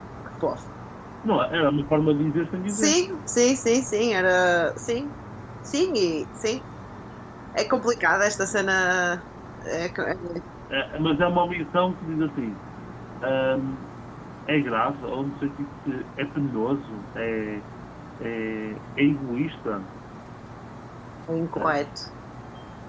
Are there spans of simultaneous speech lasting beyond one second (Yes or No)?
No